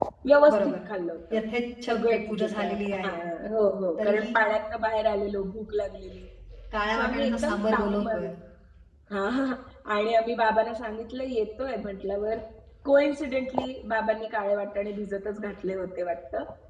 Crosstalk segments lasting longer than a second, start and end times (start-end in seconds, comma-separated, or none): 1.9-3.2, 7.0-8.3